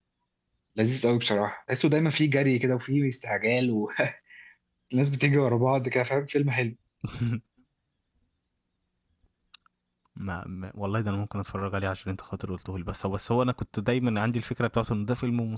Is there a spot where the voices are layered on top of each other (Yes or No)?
No